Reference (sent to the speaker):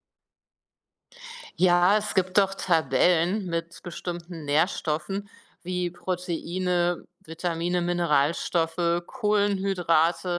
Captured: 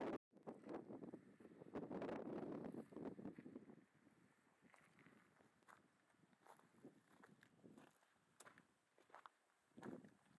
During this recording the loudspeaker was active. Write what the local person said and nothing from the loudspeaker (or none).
none